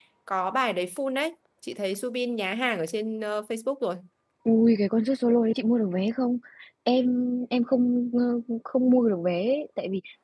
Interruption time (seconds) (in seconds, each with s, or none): none